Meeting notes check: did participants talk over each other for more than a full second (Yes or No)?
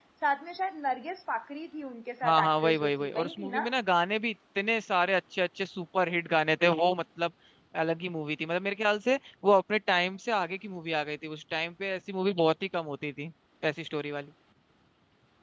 Yes